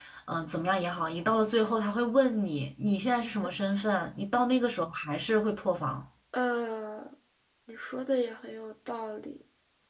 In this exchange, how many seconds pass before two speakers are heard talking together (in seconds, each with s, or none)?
none